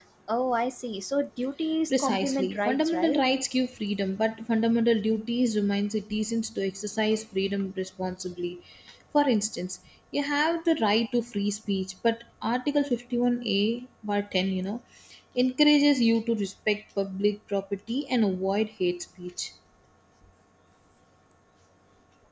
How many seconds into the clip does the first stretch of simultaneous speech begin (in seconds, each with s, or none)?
1.9 s